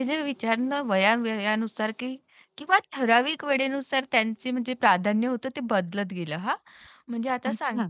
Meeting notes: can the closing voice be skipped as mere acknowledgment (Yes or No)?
Yes